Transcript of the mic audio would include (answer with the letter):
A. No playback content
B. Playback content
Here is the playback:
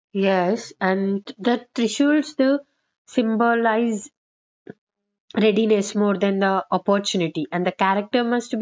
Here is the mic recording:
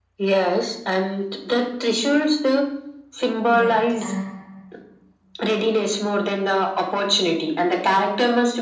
B